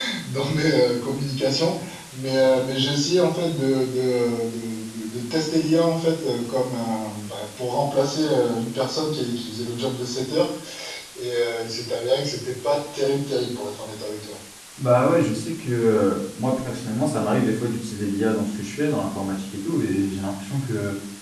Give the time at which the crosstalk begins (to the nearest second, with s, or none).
none